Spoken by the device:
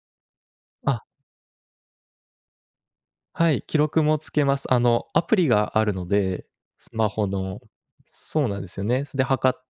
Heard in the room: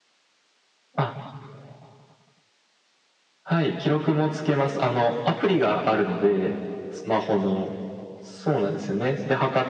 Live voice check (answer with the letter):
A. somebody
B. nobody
B